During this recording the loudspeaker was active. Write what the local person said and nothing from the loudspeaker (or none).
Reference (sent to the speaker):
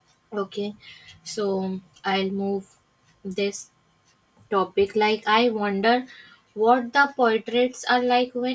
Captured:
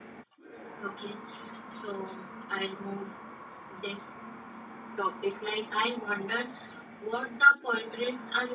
none